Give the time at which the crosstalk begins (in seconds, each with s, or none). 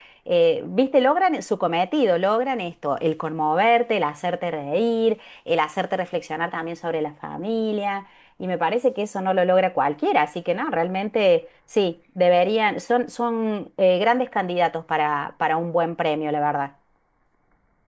none